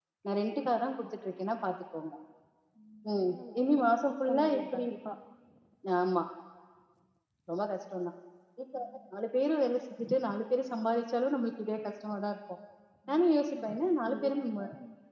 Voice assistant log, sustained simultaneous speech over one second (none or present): present